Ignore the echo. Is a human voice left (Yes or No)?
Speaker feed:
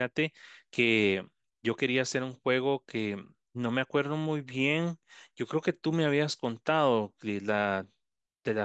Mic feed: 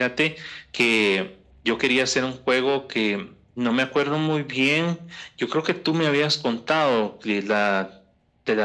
No